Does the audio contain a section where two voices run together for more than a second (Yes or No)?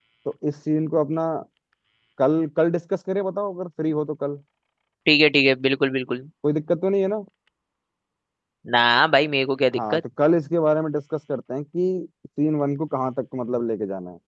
No